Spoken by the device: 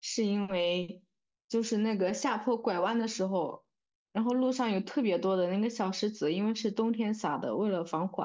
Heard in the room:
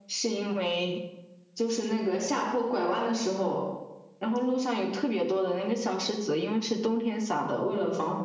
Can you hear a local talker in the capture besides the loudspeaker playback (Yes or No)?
No